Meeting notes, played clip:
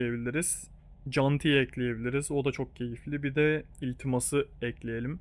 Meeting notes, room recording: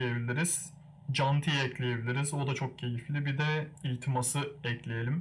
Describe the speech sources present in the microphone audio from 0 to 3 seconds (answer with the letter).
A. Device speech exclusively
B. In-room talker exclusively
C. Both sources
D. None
A